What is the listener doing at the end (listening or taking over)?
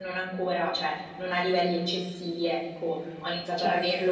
listening